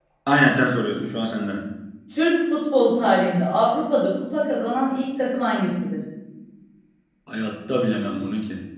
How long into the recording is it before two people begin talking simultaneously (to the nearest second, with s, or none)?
none